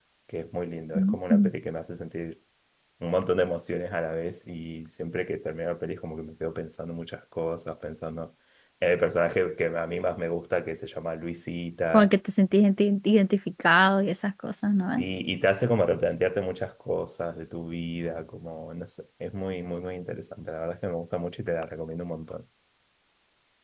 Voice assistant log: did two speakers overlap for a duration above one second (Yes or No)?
No